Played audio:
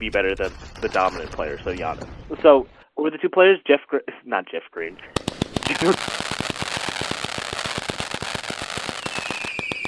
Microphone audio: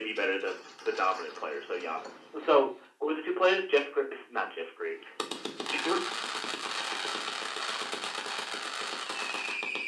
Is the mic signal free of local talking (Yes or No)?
Yes